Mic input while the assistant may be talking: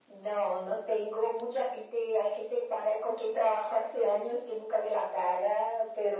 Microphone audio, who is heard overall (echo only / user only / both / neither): echo only